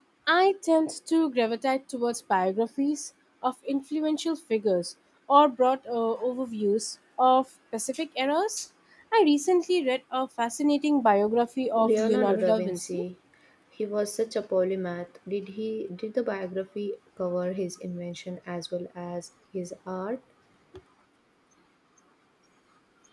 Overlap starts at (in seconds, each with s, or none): 11.8 s